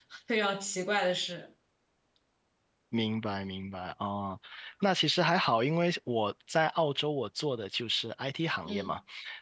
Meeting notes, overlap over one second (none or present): none